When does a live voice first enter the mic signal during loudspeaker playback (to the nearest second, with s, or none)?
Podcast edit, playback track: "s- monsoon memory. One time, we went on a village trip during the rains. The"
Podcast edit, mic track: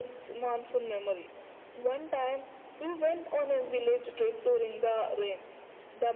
none